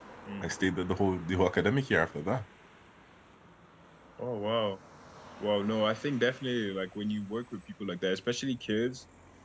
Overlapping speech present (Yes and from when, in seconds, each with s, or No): No